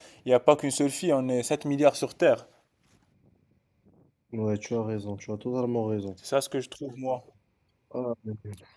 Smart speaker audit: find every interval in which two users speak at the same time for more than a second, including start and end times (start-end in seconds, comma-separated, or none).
none